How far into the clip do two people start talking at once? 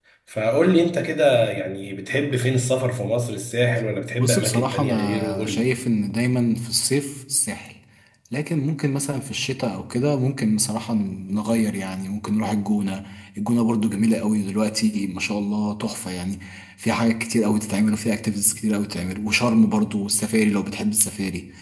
4 s

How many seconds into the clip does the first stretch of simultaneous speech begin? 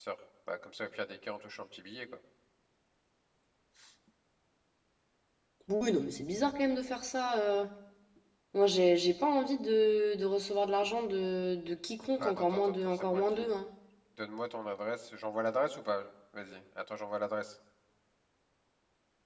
12 s

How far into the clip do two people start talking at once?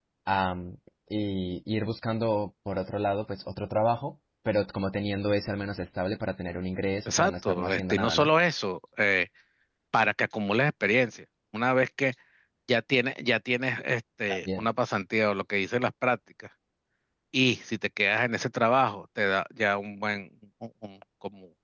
7 s

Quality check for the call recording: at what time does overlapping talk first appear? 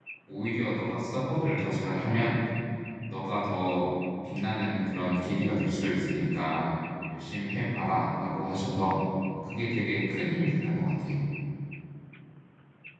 none

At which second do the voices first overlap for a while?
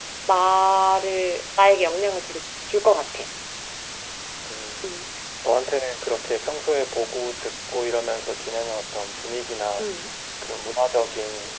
none

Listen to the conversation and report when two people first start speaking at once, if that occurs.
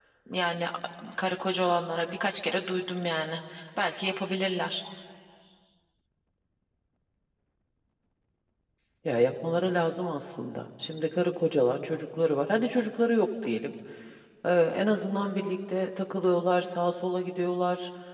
none

